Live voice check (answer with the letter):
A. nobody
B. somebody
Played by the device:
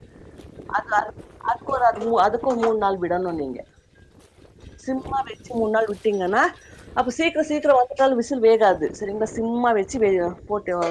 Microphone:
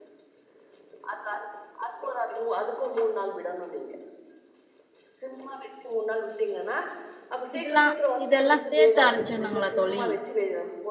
B